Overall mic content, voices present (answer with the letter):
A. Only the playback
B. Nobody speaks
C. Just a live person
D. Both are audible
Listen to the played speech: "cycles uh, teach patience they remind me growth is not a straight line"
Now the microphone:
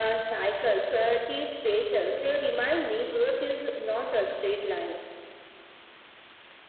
A